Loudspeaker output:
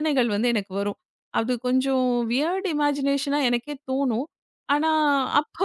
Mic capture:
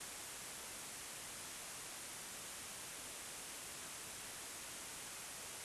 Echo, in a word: none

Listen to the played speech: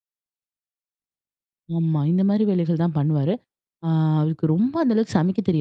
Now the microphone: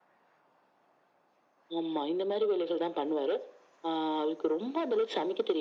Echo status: present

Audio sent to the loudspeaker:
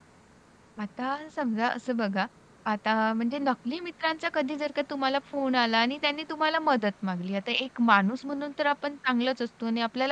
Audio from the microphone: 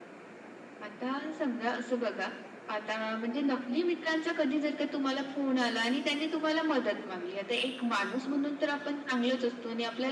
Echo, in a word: present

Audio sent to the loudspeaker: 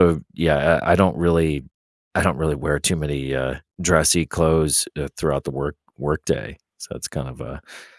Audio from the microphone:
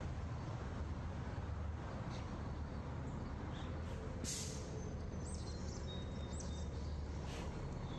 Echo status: none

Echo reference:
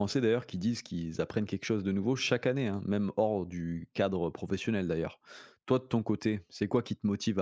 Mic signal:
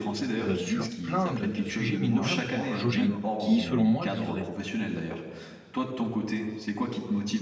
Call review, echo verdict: present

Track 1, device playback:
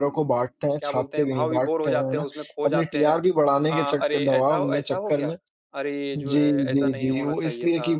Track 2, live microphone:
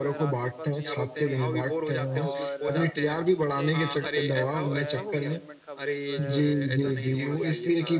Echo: present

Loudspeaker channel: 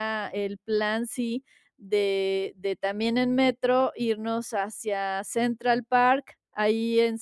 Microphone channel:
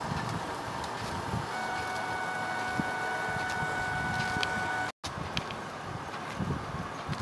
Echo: none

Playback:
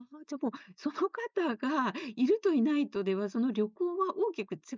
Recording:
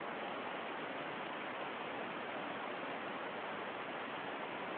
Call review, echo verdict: none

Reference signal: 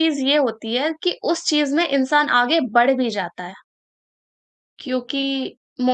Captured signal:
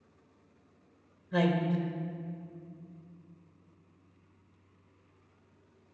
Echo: none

